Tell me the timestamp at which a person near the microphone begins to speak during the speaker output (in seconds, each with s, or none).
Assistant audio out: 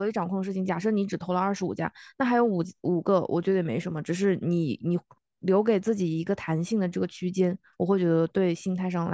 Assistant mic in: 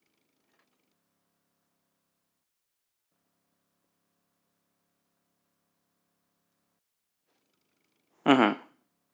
8.2 s